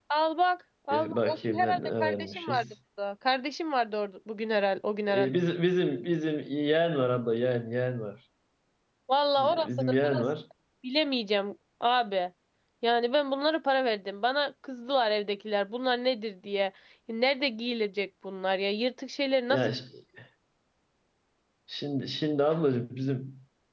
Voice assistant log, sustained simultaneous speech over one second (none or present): present